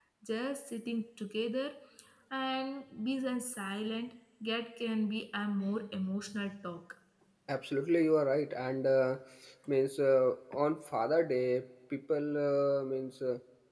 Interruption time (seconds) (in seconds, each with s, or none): none